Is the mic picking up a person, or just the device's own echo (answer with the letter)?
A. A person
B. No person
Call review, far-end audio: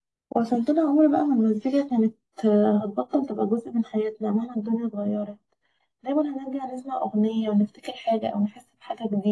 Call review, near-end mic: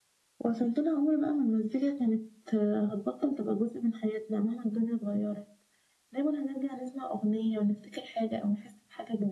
B